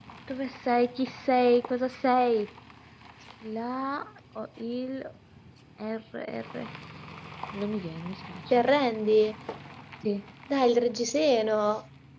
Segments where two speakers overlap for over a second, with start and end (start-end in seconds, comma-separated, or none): none